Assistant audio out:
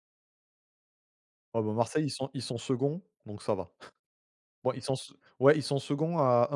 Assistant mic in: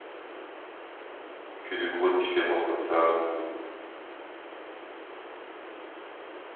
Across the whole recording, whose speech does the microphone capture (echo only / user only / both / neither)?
user only